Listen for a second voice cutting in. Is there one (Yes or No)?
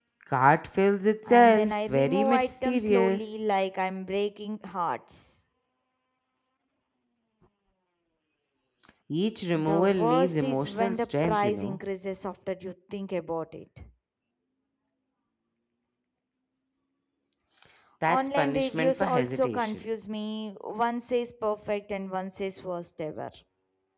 Yes